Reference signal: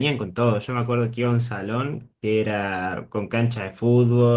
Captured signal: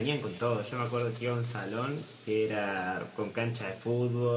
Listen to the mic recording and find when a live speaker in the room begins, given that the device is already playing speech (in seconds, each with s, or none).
none